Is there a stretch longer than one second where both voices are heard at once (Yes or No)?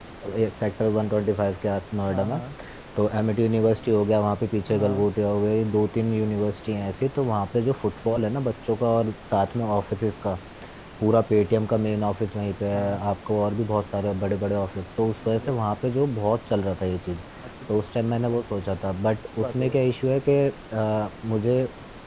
No